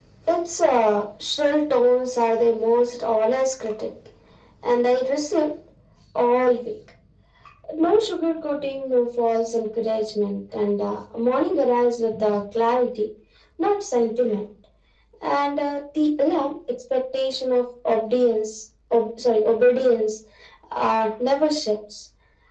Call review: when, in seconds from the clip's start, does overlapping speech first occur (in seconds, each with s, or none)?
none